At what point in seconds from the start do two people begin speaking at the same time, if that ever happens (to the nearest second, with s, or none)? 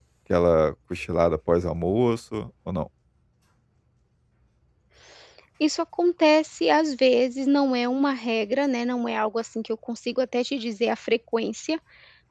none